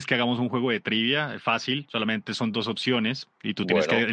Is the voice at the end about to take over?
No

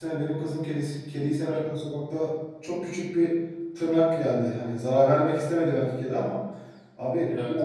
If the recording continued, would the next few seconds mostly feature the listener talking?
No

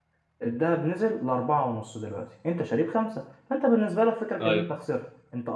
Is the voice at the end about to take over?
No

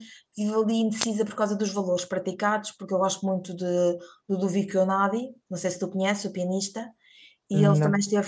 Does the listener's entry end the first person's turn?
No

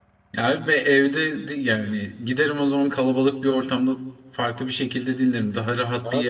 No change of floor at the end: No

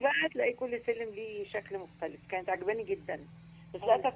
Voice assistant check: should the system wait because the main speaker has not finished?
Yes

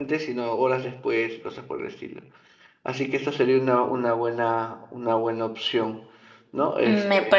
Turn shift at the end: Yes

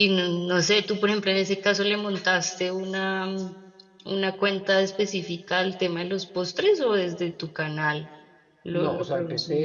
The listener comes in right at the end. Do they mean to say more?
Yes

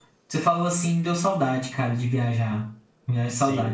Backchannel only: No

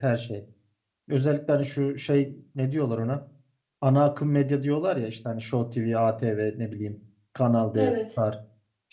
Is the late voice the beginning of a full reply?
No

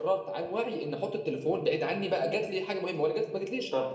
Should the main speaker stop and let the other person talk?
Yes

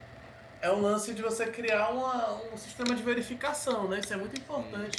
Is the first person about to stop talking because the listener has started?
No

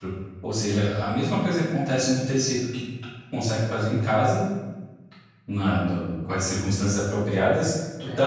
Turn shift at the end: No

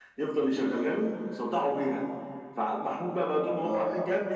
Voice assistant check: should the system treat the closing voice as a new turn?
No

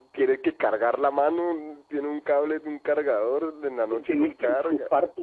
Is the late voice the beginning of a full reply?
Yes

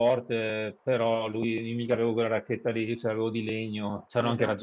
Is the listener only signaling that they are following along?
No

